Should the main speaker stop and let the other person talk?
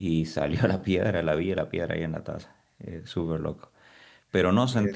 No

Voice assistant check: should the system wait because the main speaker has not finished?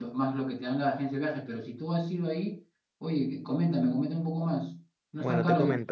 No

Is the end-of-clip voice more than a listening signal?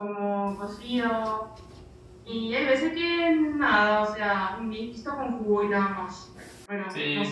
Yes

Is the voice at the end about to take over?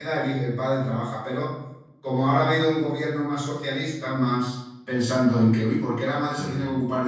No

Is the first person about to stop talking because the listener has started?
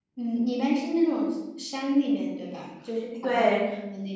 Yes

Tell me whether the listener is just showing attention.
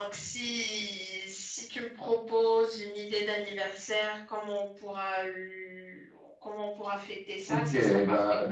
No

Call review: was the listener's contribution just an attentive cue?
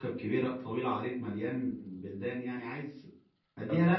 No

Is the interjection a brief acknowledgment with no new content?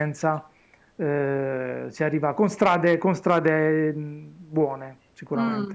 No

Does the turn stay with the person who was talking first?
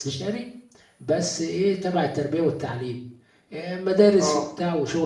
Yes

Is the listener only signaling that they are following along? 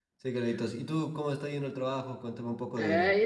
No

